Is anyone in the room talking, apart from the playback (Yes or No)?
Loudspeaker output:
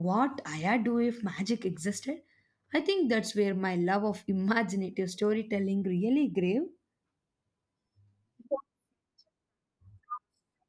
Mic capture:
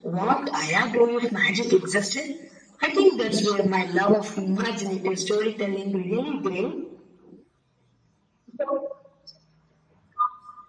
No